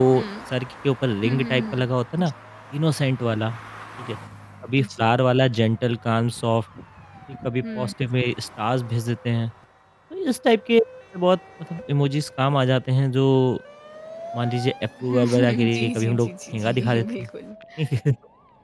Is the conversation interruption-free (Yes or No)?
No